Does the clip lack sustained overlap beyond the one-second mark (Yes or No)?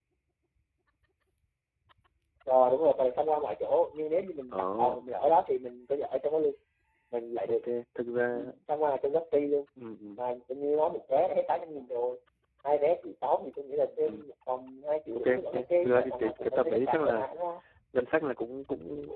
No